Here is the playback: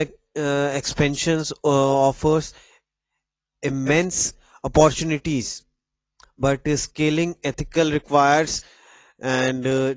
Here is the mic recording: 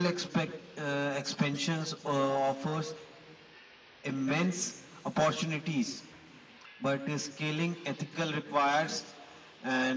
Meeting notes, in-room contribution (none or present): none